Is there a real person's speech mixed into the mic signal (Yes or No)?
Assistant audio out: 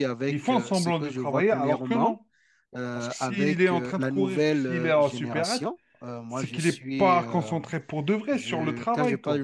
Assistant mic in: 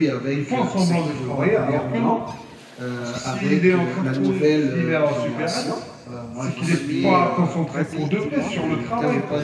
Yes